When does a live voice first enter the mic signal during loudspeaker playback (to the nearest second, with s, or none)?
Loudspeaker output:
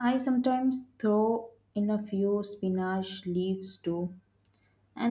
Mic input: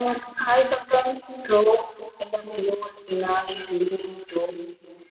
none